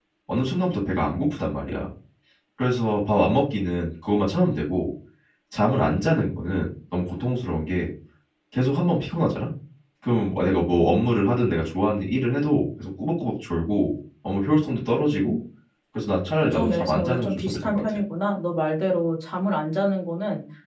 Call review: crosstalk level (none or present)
present